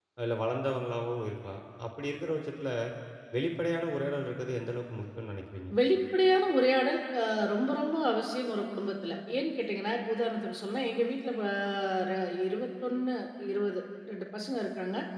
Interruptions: none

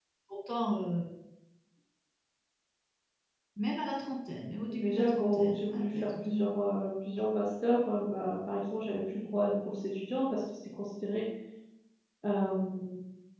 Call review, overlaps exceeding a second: present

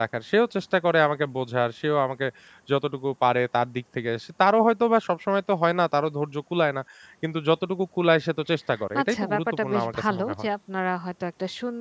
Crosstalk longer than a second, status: present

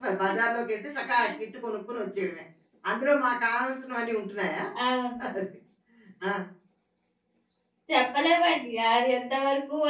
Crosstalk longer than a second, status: none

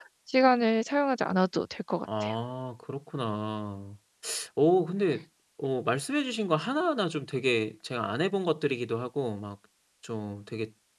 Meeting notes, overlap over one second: none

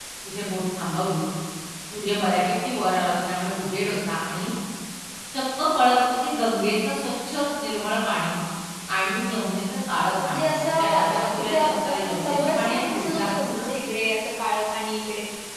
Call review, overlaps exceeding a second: present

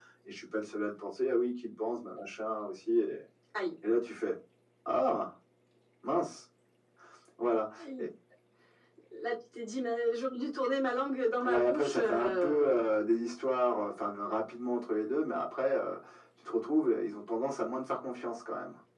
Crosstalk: present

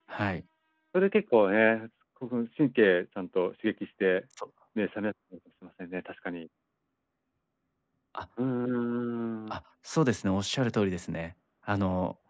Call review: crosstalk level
none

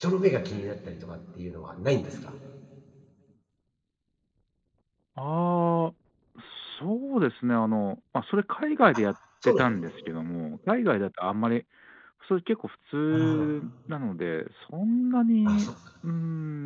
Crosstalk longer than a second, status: none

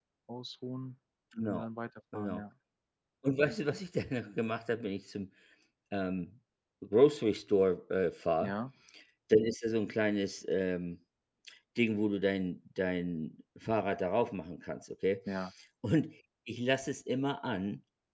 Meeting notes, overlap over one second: none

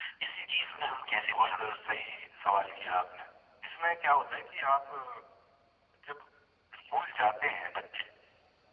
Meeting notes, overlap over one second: present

